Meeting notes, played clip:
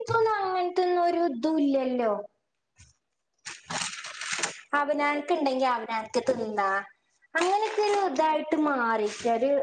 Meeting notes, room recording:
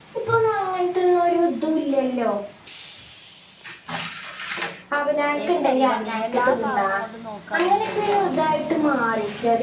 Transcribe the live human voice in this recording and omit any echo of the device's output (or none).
ഏത് പെരിയിലാണ് എല്ലാ സാധനം കൊണ്ട് നോക്കാ എന്നുണ്ടെങ്കിലും അങ്ങനെ തന്നെ